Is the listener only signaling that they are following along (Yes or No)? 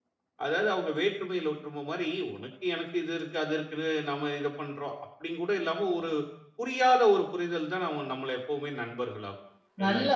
No